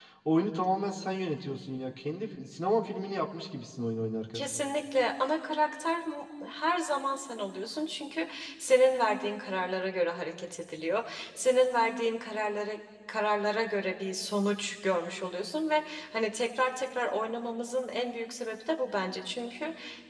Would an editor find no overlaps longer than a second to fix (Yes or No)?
Yes